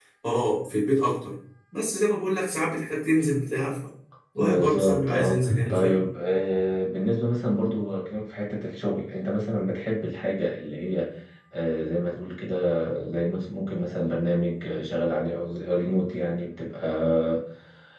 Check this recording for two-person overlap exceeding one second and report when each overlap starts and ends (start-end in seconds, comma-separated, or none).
4.4-6.0